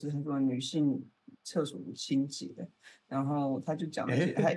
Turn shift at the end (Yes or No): No